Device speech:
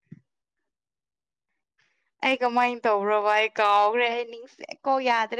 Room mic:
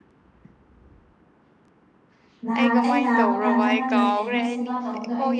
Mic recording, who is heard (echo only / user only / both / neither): both